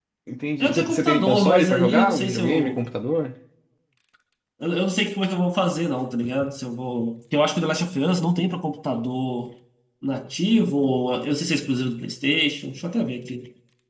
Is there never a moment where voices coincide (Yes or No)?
No